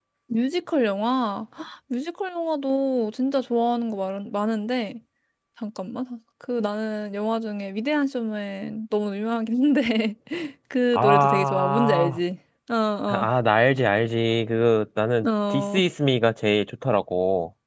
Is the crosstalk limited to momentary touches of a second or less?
No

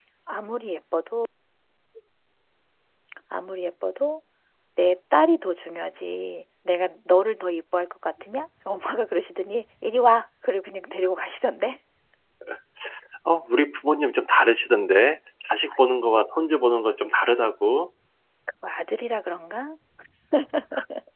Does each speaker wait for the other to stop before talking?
Yes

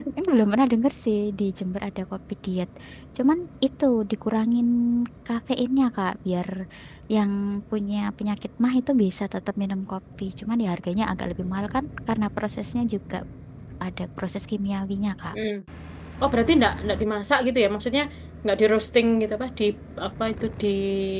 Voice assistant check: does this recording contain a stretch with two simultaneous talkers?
No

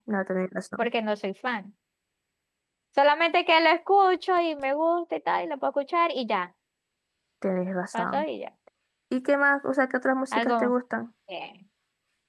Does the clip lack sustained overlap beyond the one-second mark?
Yes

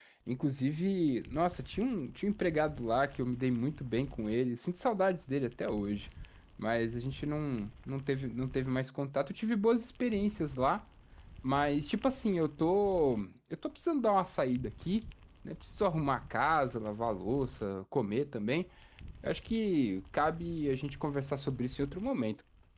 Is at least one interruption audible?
No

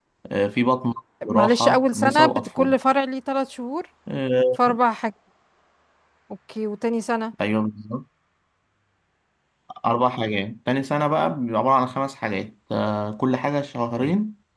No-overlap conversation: No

